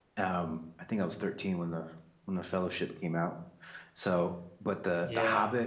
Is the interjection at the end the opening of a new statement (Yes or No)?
No